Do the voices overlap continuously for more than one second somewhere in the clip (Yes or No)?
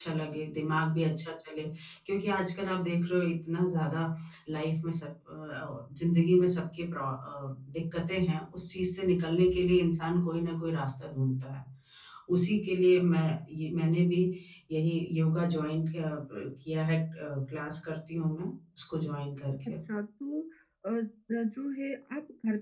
No